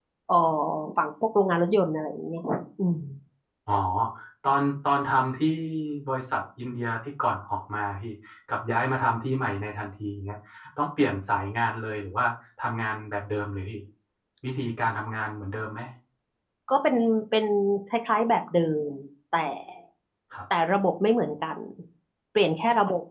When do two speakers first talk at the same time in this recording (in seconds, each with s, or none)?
none